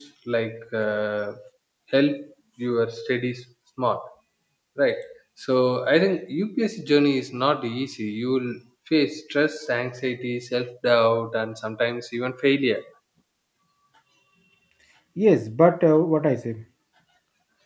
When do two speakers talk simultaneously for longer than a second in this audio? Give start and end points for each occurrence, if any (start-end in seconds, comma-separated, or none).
none